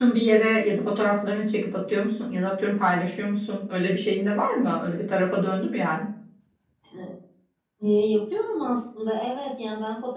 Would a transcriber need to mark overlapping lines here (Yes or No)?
No